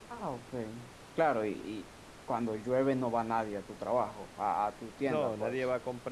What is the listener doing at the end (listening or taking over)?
taking over